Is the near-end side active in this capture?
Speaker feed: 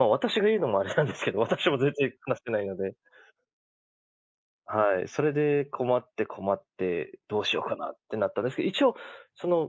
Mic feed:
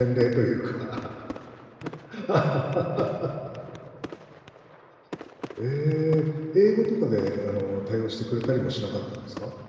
Yes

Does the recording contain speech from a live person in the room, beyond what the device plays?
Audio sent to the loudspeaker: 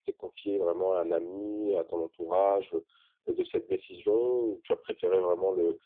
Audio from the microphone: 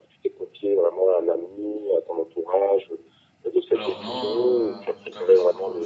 Yes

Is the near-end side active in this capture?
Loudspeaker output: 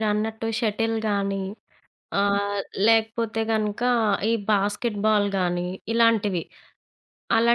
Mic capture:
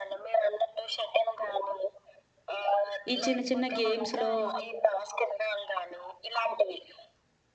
Yes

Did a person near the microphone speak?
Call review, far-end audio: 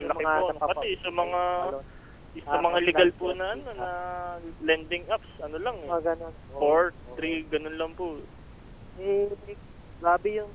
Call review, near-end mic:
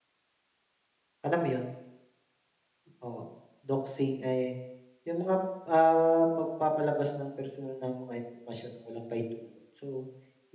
Yes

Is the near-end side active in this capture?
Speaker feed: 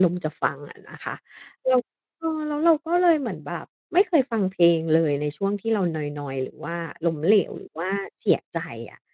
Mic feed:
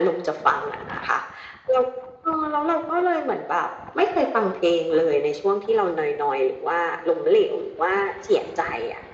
No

